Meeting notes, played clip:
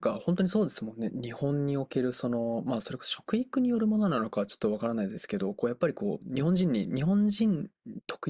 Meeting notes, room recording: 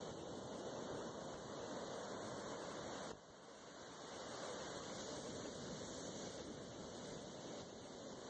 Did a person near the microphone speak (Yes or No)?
No